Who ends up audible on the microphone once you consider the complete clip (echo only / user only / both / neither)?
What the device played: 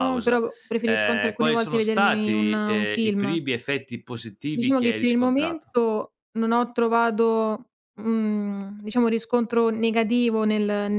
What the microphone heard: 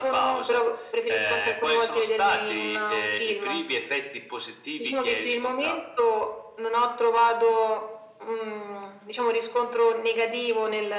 echo only